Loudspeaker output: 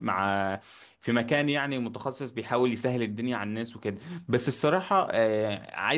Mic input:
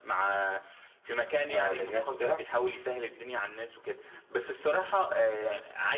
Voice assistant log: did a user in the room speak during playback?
Yes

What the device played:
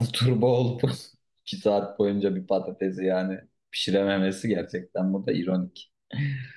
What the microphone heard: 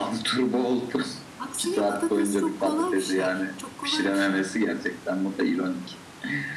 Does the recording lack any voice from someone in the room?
No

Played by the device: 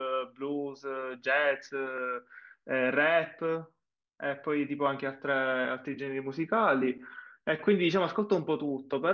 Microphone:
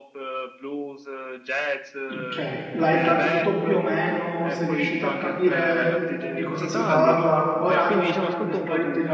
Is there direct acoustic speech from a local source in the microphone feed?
Yes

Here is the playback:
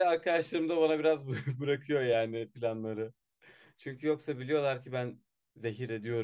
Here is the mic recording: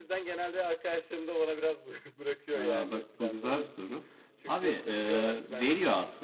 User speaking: Yes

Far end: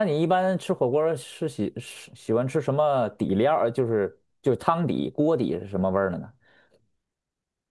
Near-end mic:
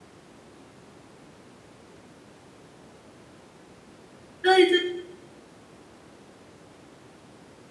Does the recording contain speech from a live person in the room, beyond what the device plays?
Yes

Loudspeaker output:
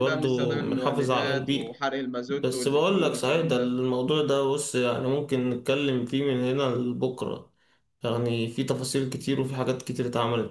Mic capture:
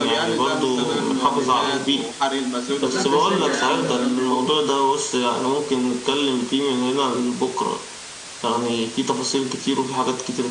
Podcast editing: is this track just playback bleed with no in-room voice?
No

